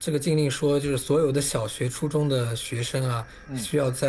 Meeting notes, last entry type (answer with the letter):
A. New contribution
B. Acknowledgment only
B